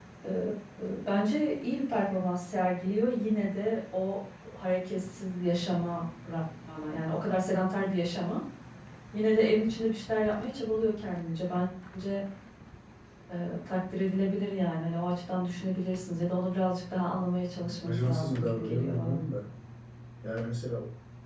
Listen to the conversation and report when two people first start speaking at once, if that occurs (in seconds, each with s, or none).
17.6 s